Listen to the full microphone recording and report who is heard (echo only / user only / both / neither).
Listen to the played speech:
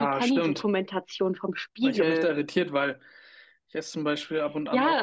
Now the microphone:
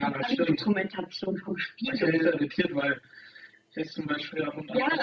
echo only